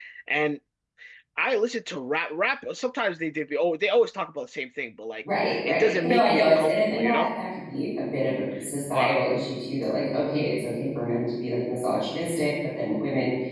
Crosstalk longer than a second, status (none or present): present